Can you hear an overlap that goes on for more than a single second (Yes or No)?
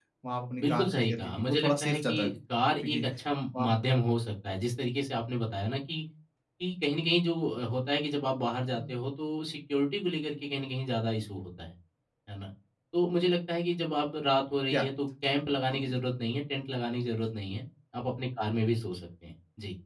Yes